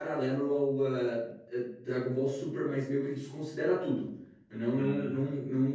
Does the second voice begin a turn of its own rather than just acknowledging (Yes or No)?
No